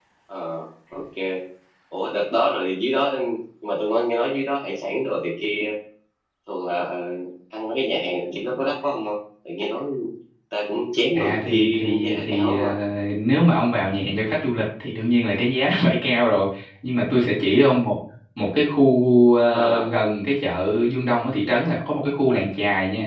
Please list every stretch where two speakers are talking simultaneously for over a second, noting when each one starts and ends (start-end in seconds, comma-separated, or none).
11.2-12.6